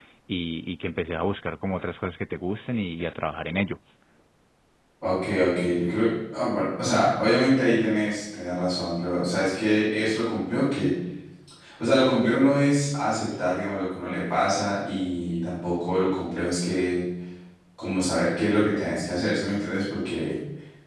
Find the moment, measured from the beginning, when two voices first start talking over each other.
none

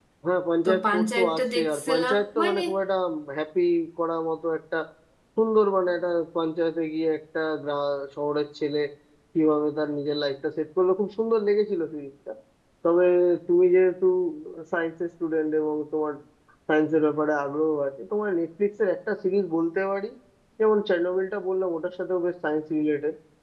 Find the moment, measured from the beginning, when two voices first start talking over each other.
0.6 s

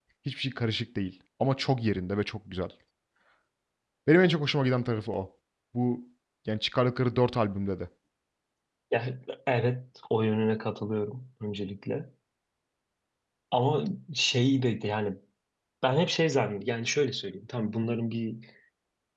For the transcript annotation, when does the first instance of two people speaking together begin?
none

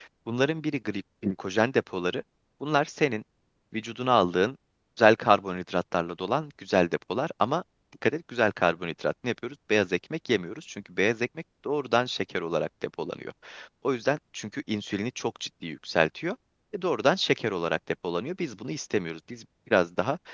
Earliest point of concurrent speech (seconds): none

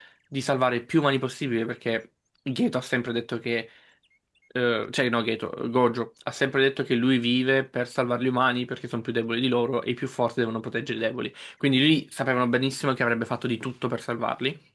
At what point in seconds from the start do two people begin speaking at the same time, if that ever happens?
none

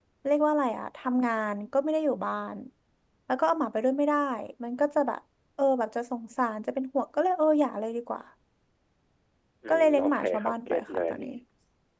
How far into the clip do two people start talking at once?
9.7 s

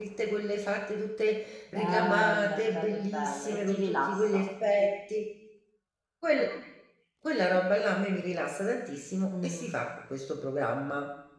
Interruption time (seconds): 1.7 s

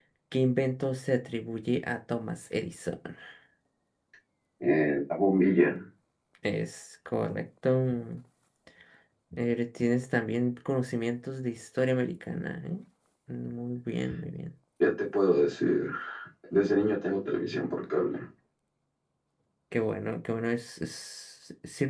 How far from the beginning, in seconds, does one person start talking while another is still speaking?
none

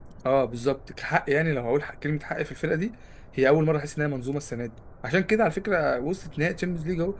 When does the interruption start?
none

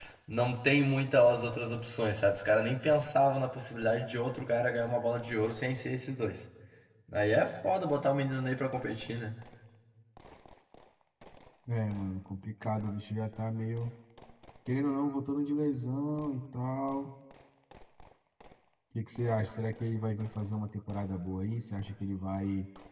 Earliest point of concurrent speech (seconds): none

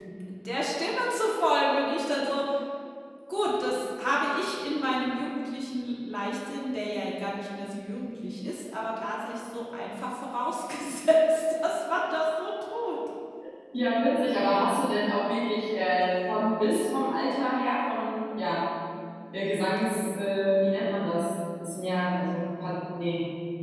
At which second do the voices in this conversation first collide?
none

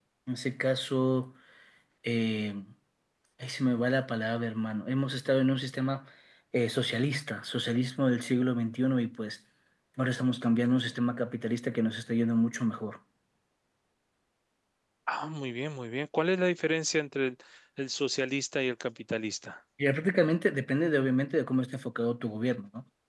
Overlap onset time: none

